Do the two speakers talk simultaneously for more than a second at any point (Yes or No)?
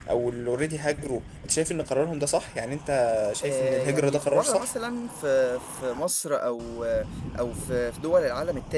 Yes